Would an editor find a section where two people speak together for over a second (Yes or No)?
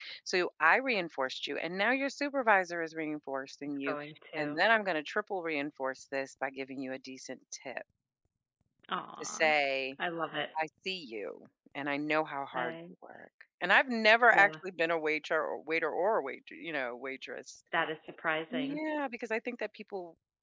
No